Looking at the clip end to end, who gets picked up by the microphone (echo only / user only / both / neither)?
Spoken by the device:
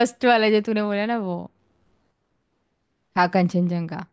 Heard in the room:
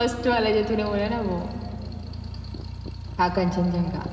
echo only